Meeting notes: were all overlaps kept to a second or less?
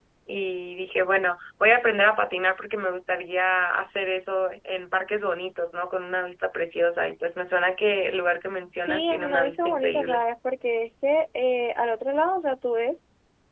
No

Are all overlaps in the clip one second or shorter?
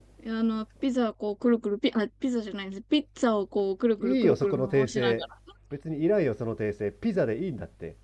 No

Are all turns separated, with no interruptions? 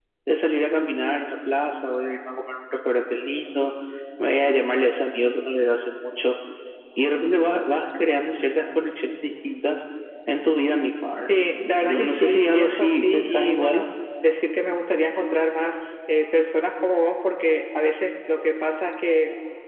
No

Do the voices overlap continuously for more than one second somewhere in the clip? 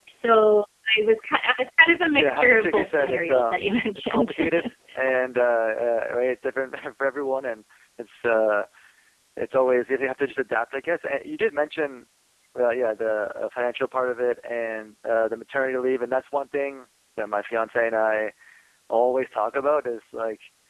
Yes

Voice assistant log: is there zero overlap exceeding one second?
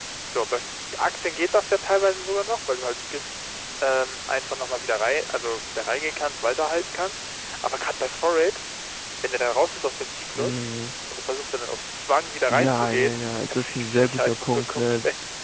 No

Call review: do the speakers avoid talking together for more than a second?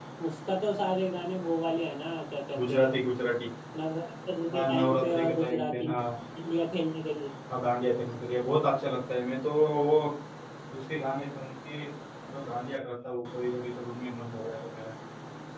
No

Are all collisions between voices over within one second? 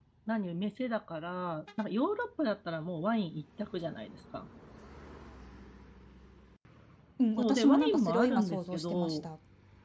No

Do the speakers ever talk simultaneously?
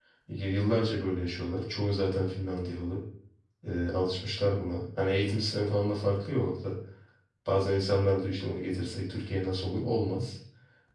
No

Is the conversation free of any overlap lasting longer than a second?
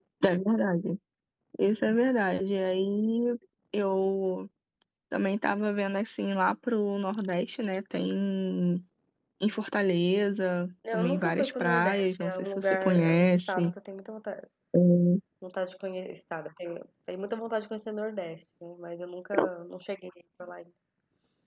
No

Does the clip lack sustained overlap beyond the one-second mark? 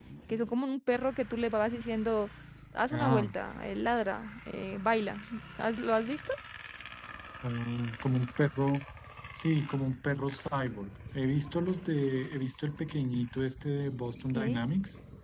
Yes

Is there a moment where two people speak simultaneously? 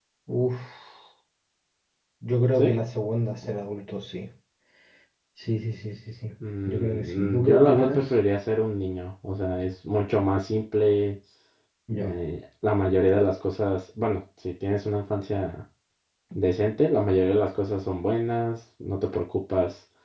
Yes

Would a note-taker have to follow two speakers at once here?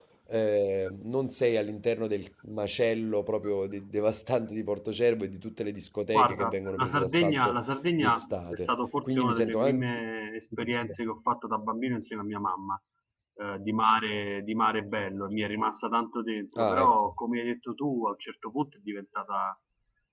Yes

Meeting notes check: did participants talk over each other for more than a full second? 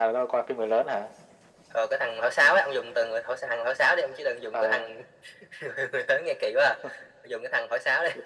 No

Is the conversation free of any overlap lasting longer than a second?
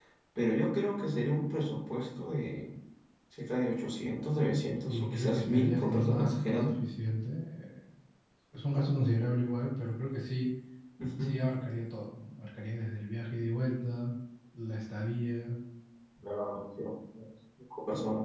No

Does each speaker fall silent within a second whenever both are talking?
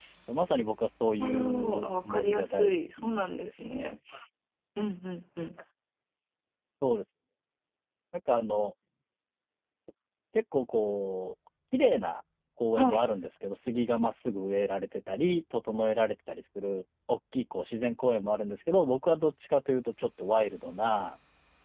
No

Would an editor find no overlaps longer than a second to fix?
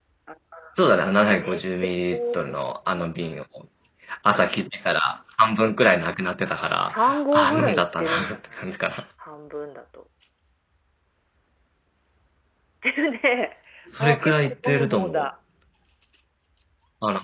No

